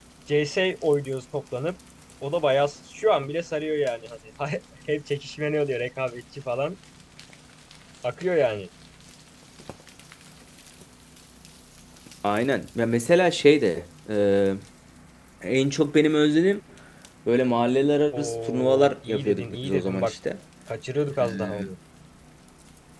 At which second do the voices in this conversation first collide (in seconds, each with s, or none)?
18.1 s